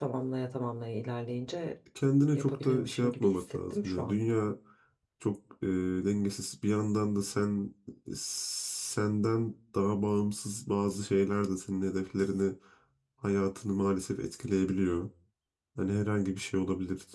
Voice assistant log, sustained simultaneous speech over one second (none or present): present